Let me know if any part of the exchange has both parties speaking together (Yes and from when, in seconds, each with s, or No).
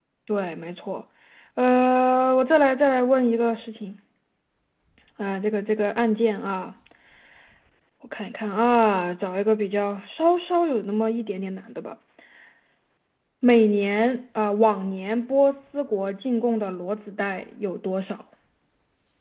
No